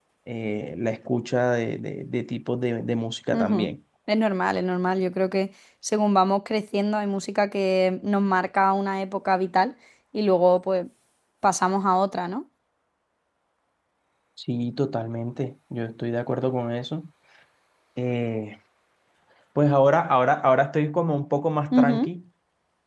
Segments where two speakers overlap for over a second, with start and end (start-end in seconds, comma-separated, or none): none